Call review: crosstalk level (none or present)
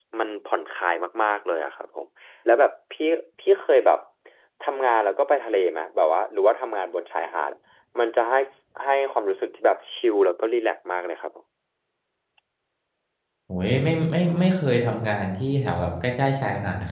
none